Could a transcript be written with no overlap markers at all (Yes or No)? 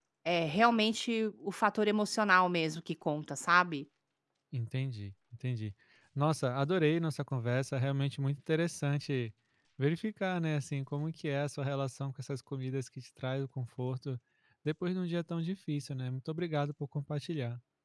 Yes